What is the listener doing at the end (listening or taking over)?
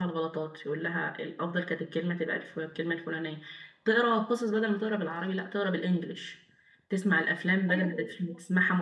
listening